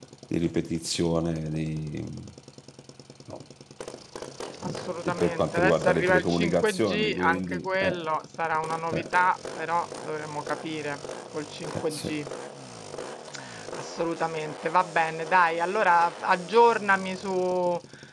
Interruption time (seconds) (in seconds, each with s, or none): 4.6 s